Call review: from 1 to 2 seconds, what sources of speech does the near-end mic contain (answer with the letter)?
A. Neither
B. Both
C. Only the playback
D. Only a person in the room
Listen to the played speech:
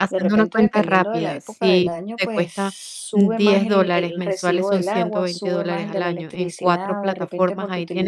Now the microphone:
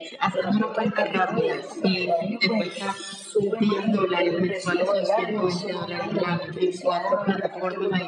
C